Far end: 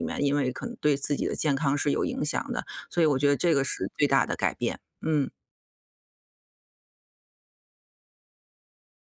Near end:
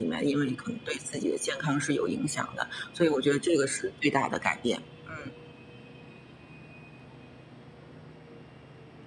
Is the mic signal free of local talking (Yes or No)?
Yes